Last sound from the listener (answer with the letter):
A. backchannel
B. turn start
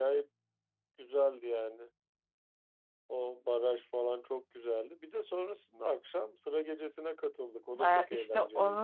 B